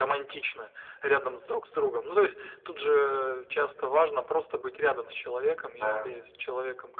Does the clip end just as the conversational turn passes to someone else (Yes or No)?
No